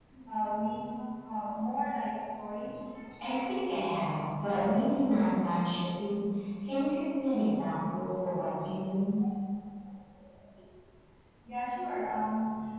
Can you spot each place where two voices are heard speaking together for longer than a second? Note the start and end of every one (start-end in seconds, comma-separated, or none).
none